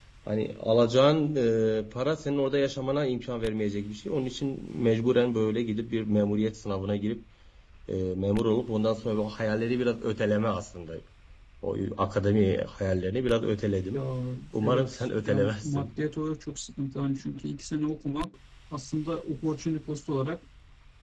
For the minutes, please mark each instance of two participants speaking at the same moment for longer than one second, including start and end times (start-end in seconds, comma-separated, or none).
14.6-15.9